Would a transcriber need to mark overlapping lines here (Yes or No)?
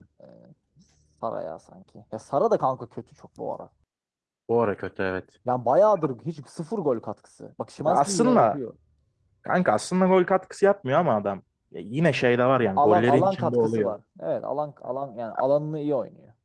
Yes